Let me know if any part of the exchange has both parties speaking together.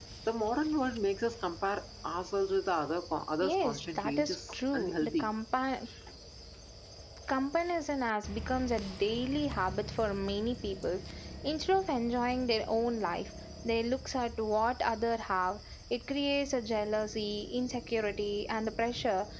Yes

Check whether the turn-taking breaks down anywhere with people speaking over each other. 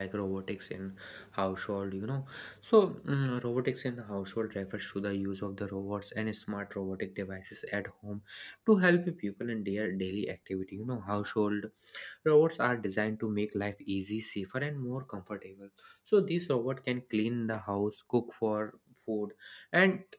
No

